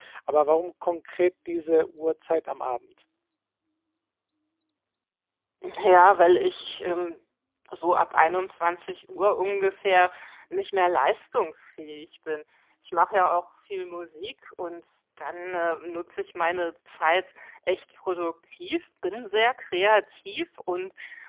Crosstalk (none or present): none